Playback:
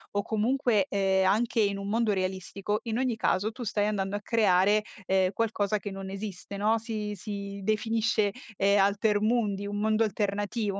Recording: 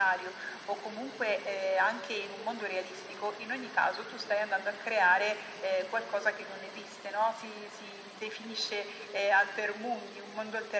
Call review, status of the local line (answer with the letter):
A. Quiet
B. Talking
A